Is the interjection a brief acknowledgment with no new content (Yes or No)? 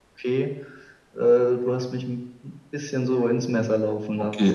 No